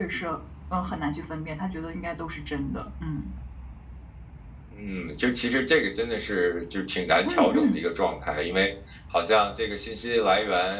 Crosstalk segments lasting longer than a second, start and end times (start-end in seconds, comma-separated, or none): none